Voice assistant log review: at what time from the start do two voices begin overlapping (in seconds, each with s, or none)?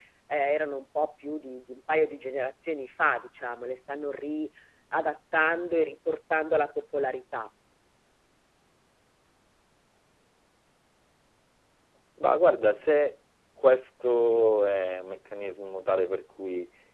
none